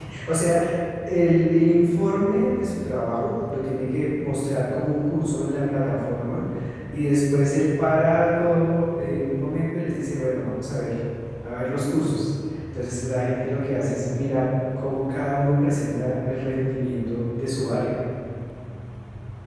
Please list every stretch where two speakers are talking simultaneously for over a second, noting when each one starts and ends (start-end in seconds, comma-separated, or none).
none